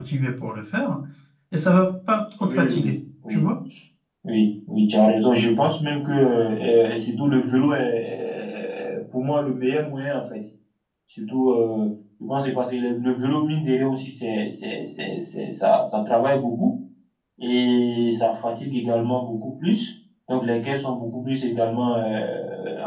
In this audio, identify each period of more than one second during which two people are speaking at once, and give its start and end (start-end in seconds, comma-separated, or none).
none